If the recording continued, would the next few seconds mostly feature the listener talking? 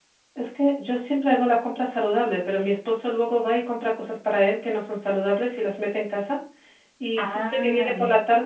No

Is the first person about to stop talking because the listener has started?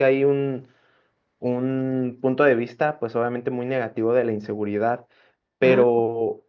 No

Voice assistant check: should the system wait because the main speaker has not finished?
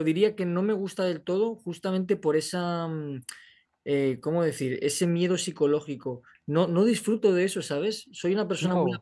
Yes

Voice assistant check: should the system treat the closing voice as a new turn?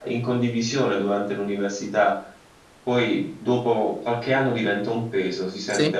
No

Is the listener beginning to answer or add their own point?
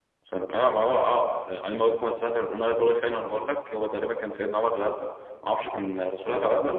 No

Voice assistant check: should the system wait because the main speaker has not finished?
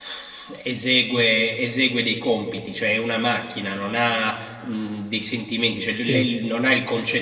Yes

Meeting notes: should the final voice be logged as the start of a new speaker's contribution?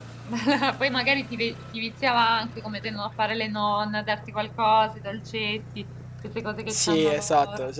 Yes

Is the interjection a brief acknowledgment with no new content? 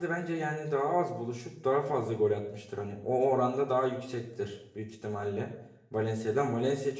Yes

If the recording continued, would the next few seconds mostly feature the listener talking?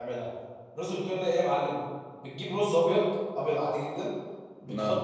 No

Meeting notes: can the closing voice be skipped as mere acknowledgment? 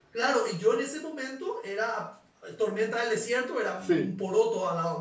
Yes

